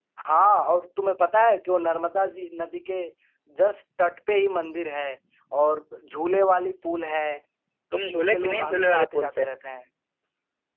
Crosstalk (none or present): present